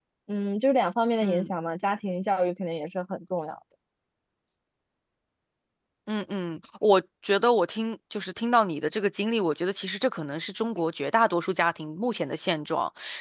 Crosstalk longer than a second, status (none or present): none